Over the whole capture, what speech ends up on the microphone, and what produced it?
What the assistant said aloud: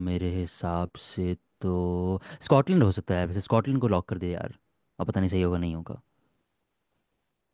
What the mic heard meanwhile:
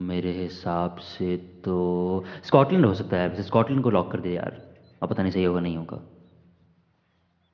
echo only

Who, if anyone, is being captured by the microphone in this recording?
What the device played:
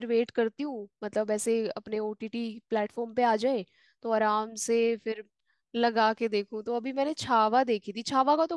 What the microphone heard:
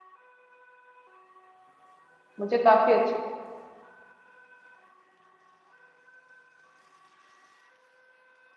user only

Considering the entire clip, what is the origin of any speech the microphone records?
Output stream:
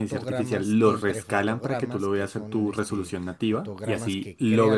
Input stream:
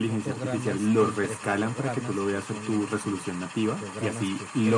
echo only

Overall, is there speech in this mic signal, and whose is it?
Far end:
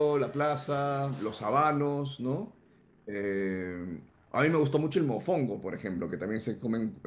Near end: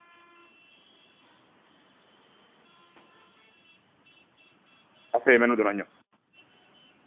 user only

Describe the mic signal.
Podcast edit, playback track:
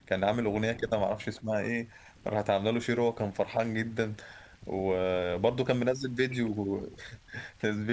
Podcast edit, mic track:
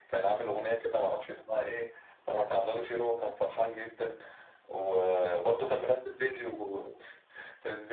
echo only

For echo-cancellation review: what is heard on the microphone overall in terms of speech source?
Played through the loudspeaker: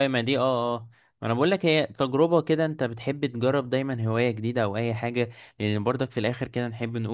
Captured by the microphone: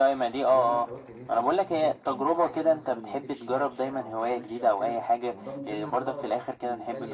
both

